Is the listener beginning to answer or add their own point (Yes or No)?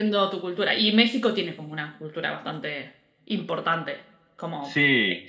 Yes